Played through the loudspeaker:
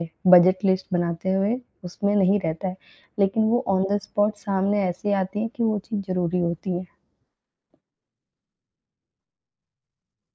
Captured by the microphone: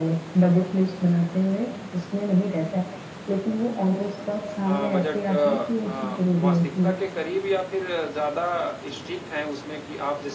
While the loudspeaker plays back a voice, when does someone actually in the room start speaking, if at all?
4.6 s

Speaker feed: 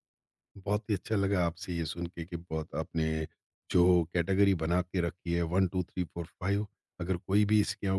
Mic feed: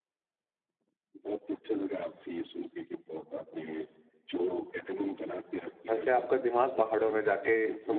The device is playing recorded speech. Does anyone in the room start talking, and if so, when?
5.9 s

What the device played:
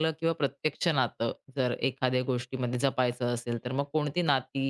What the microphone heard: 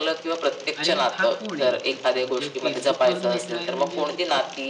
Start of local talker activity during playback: 0.7 s

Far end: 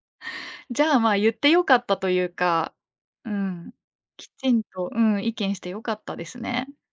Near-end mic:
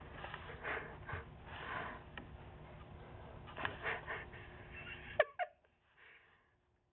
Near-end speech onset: none

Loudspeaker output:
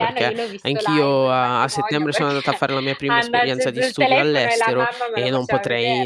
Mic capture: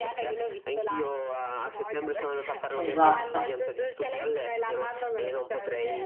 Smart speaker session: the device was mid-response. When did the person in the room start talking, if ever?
2.8 s

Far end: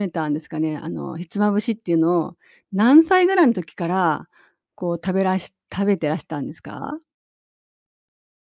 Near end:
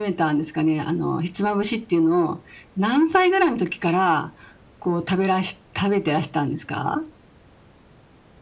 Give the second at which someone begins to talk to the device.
none

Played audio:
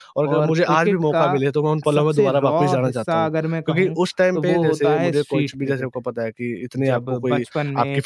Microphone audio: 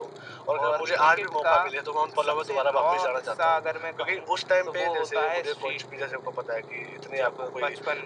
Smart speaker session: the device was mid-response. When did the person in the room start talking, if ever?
none

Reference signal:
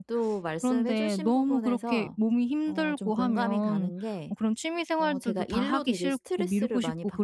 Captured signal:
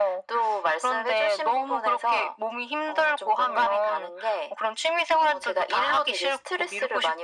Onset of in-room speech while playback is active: none

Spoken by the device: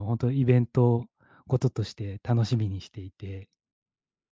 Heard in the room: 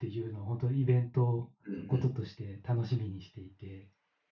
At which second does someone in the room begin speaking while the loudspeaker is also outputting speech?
1.6 s

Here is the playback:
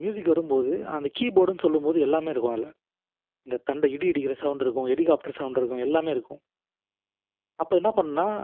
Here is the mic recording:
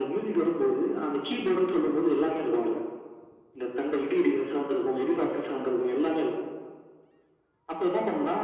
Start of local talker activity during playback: none

